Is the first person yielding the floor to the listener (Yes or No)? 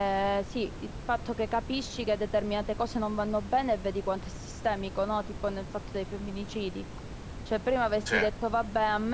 No